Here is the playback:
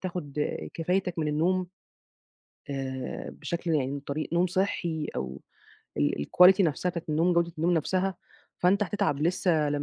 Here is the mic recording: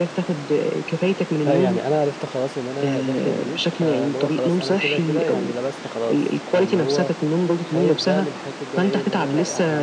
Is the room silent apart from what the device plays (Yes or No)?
No